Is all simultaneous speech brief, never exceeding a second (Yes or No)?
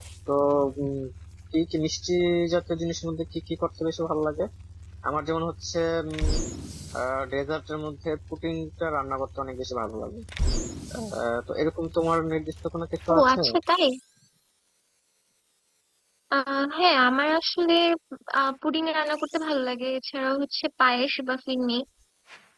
Yes